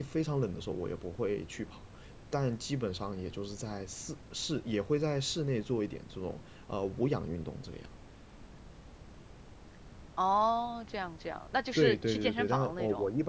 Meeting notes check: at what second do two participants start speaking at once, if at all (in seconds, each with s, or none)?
11.8 s